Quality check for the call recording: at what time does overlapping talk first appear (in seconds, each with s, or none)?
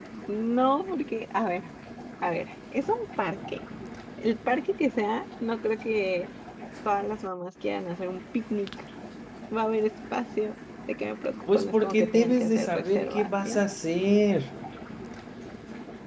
11.5 s